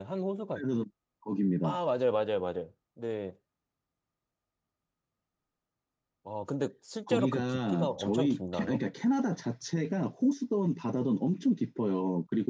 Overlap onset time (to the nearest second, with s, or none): 7 s